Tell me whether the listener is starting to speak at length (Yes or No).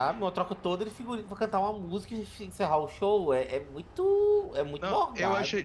Yes